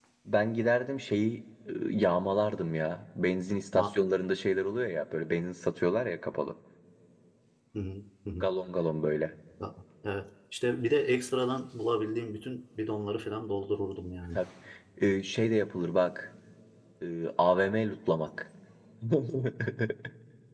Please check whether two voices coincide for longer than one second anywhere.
No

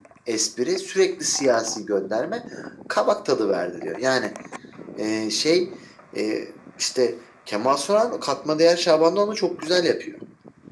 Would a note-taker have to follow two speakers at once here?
No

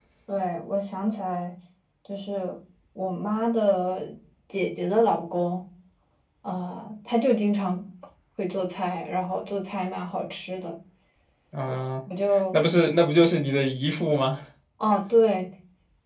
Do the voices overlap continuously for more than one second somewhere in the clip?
No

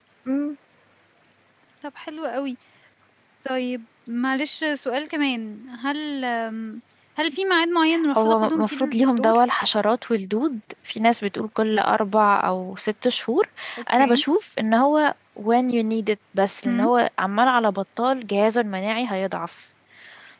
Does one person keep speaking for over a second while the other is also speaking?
Yes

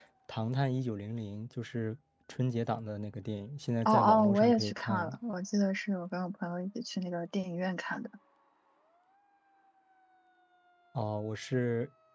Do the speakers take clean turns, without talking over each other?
No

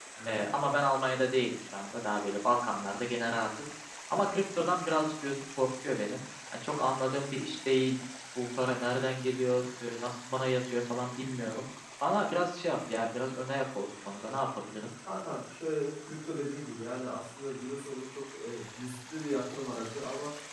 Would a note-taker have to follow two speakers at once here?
No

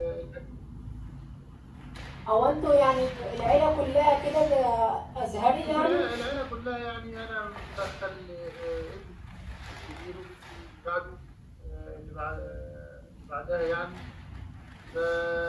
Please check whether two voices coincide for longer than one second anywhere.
No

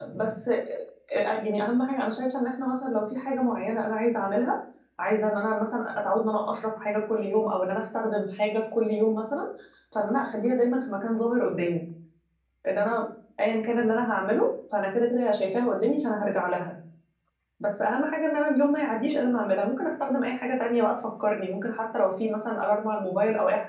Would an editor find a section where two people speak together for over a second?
No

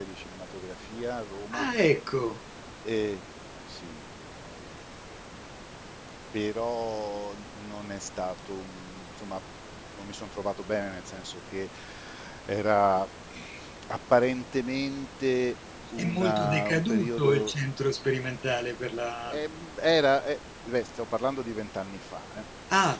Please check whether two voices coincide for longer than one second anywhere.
Yes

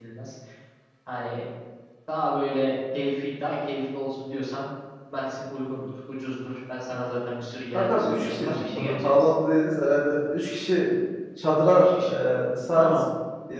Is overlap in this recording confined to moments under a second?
No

